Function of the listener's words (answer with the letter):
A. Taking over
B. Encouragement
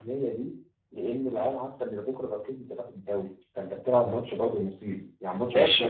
A